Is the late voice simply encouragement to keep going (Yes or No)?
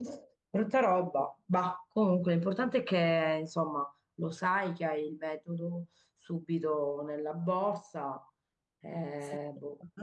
No